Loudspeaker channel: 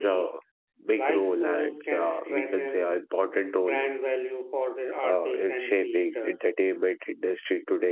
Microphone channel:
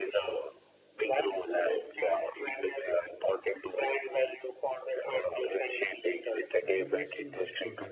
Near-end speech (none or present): present